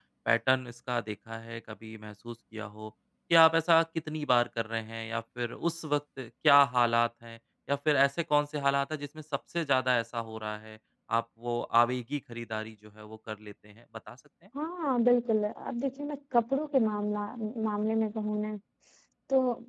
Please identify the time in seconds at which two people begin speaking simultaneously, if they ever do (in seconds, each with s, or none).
none